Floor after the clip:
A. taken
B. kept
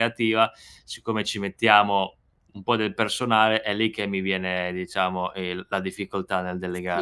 A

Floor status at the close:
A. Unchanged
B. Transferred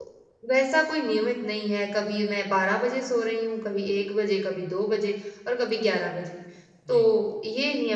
A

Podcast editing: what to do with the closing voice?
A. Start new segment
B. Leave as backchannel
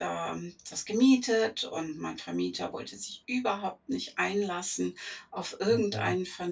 B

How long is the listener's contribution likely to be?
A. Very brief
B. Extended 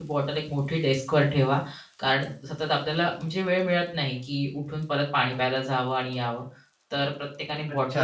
B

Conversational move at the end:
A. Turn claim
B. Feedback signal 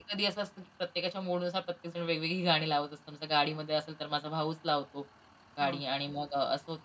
B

